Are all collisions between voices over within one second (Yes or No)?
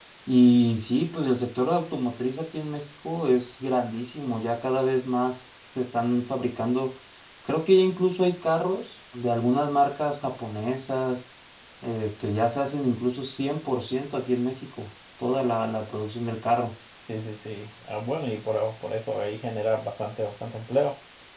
Yes